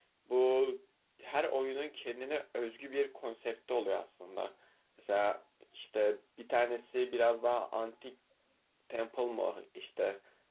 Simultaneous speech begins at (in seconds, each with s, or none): none